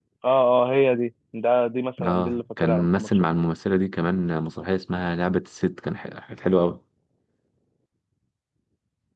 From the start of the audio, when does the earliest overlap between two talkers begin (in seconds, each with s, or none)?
2.0 s